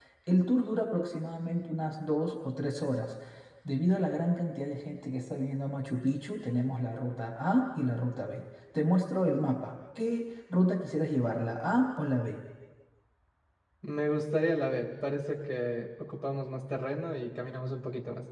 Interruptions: none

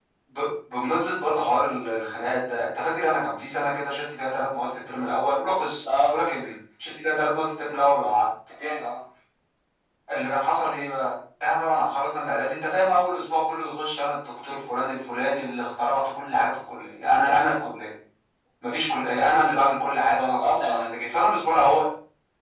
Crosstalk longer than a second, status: none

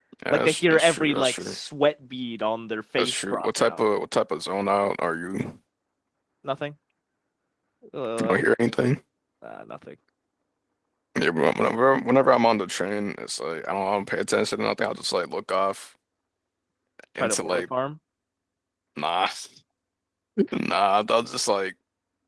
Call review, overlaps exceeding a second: present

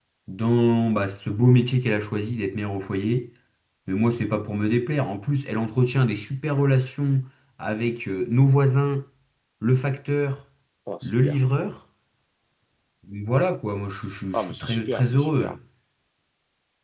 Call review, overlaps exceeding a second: present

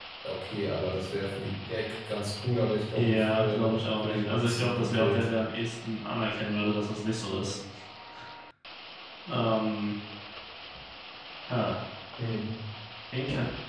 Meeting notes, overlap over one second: present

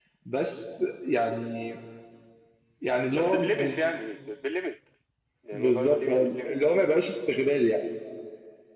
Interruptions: present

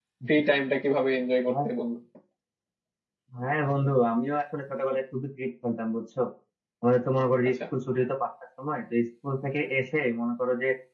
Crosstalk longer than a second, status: none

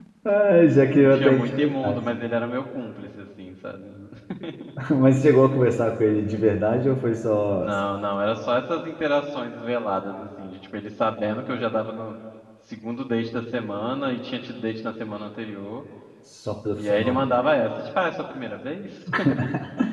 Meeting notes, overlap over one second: present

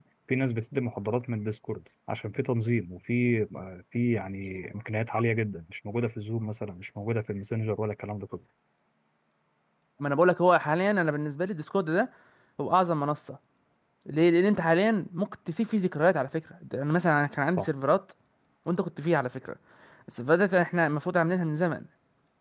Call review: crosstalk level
none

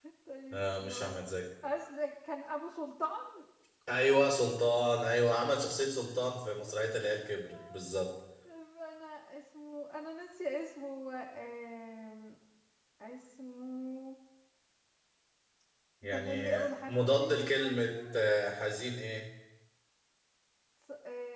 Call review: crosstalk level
present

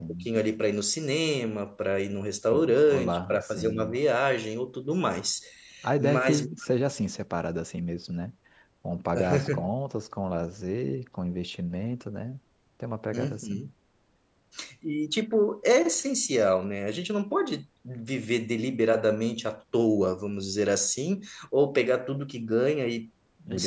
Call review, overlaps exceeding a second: present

